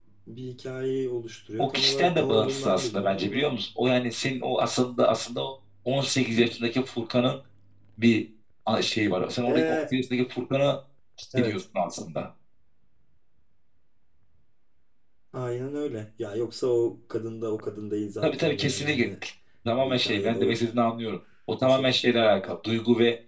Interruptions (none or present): present